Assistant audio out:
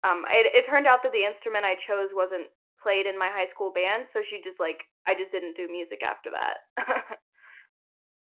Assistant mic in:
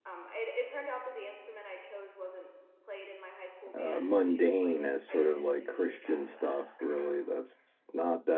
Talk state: both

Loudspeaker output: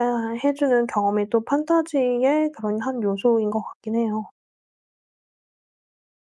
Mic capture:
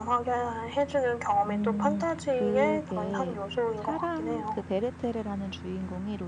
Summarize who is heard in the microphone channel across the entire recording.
both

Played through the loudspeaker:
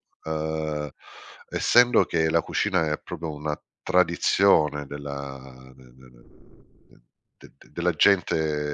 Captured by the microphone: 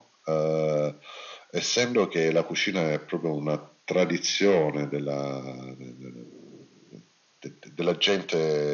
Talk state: echo only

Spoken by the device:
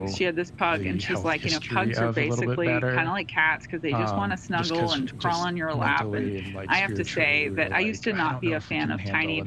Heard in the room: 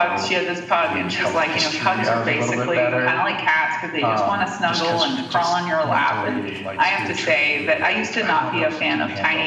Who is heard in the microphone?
echo only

